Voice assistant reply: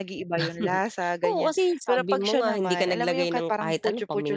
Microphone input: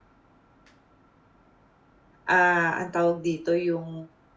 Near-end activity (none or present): present